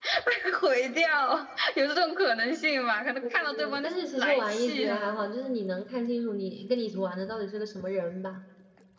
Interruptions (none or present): present